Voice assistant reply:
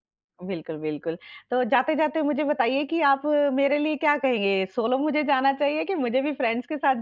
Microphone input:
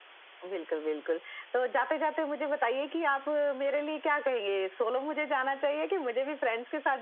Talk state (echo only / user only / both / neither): echo only